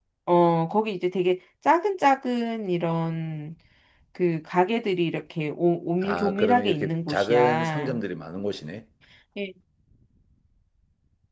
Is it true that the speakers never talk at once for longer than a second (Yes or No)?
No